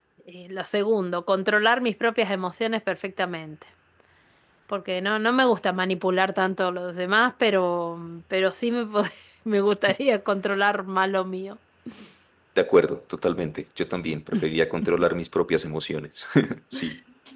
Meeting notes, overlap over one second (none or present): none